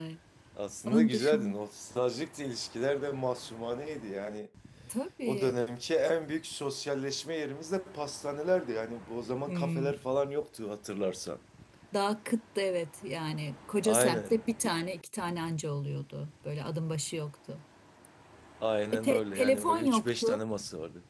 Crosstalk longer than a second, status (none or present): present